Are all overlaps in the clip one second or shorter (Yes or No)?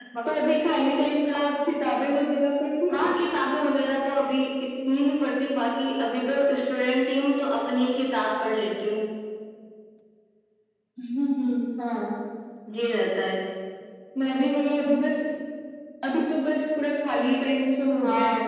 Yes